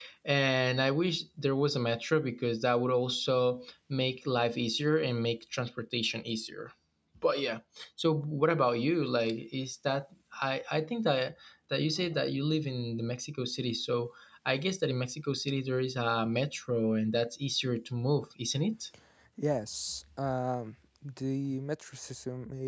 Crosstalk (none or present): none